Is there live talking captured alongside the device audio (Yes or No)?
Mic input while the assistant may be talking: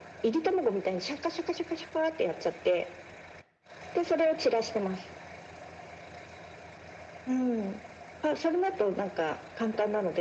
No